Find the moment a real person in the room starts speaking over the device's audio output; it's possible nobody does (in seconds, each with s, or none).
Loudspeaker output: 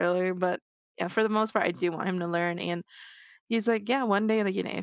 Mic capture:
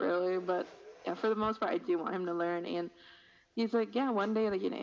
none